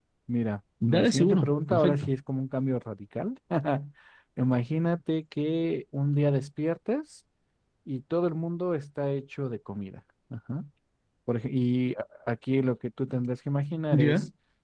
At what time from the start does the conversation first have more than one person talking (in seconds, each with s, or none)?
0.8 s